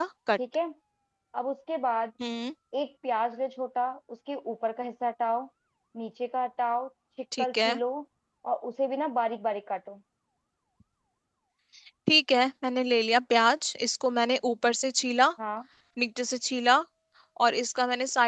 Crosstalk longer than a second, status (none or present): none